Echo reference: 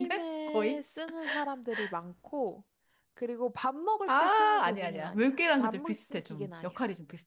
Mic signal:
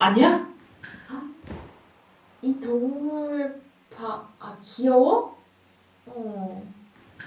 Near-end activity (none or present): present